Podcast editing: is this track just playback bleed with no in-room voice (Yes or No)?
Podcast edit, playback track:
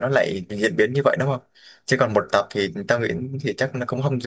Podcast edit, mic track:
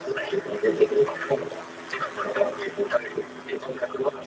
Yes